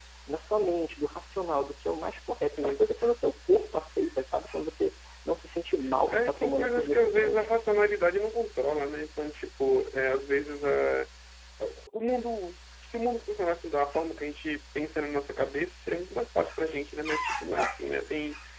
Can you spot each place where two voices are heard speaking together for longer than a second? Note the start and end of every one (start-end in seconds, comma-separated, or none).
6.1-7.5